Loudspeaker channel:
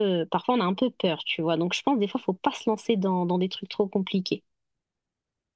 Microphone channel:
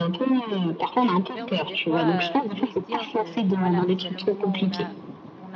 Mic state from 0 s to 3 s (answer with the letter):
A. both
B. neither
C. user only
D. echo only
A